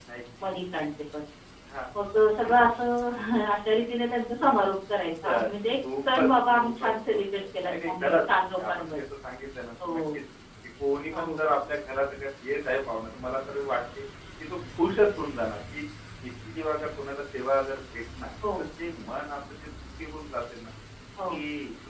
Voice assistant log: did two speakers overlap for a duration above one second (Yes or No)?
Yes